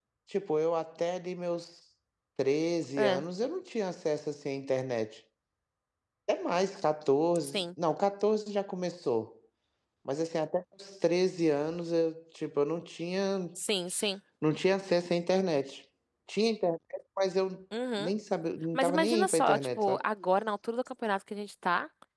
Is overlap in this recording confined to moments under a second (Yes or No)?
No